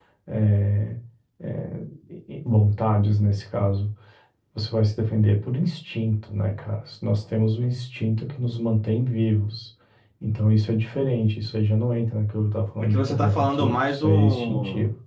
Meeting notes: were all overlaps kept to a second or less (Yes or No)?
No